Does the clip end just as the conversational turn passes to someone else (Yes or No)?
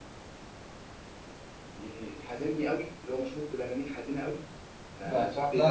Yes